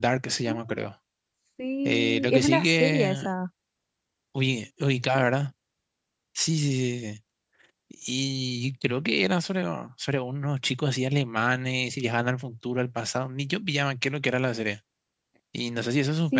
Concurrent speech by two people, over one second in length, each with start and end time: 1.8-3.1

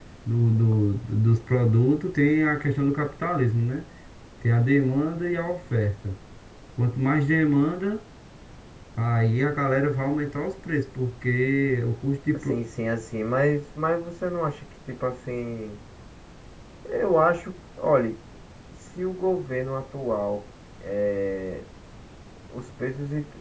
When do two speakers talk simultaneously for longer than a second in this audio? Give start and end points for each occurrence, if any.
none

